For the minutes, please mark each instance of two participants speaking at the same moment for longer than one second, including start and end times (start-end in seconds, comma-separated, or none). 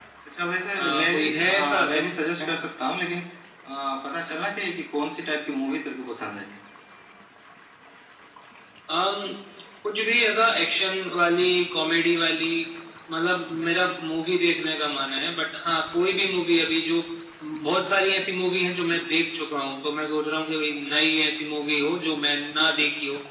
0.8-2.1